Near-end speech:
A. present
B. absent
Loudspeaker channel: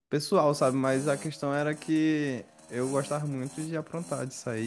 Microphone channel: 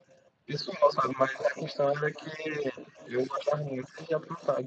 B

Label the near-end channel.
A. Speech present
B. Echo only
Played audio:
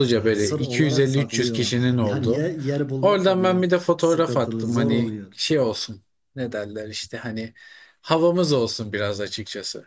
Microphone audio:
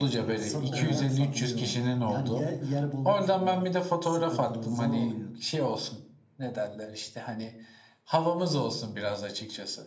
A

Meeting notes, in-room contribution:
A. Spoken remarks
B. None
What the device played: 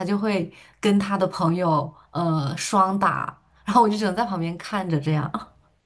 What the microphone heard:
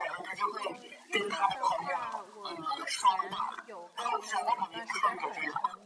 A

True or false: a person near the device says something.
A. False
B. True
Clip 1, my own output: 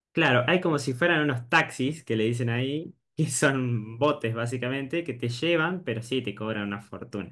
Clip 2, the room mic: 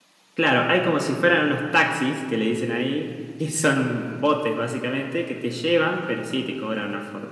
A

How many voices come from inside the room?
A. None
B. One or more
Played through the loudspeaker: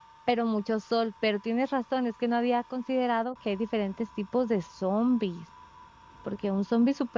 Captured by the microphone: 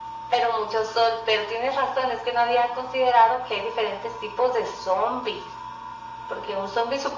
A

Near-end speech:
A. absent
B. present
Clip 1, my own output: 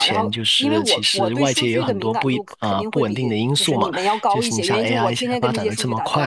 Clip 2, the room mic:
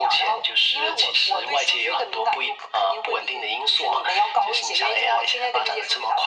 A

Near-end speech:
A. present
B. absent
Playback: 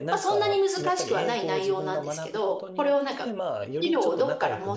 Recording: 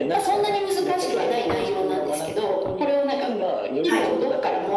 A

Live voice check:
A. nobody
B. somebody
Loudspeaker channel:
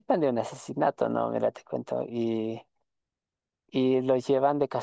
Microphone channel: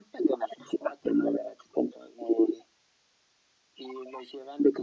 A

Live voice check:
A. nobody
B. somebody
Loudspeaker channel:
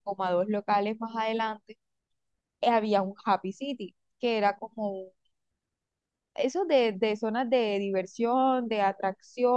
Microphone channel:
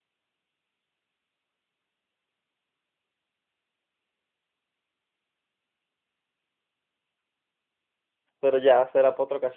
B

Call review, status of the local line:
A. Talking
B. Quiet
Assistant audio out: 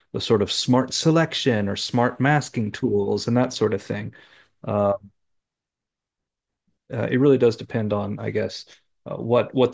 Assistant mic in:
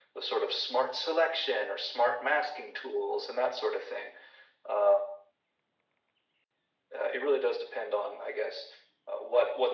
B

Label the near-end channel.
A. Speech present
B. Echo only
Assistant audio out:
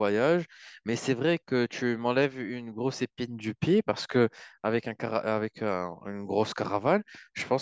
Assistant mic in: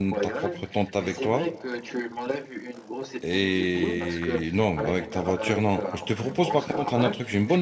A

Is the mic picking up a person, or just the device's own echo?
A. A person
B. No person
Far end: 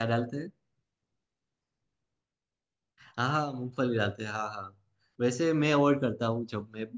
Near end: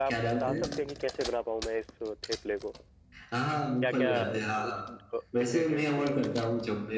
A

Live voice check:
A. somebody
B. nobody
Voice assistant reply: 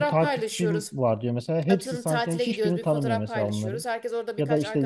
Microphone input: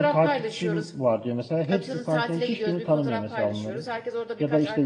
B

